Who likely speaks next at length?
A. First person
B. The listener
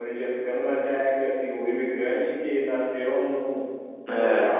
A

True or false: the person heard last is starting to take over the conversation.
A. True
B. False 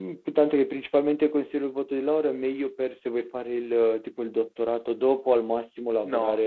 B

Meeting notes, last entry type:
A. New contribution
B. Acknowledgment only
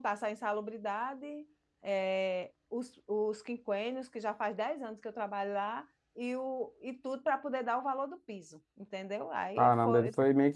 A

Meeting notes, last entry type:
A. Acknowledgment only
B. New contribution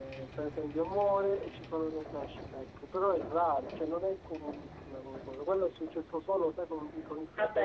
B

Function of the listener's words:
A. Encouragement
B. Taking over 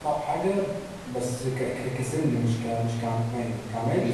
A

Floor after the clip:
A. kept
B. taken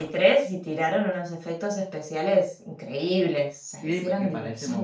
B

